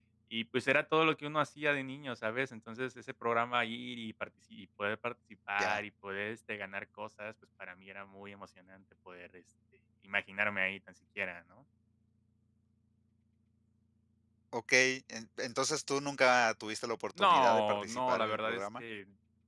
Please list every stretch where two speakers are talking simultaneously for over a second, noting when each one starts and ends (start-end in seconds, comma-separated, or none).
17.2-18.8